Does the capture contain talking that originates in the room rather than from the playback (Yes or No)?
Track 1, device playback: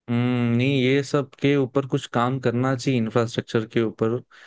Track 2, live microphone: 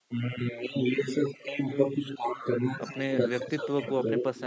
Yes